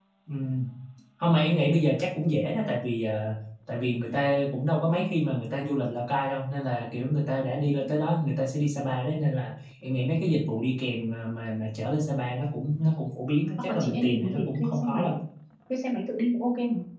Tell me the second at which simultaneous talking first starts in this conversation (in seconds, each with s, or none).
13.7 s